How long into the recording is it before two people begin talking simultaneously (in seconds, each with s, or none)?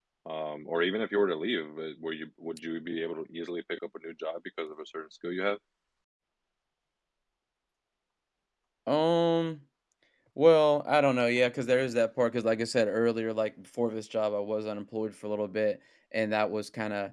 none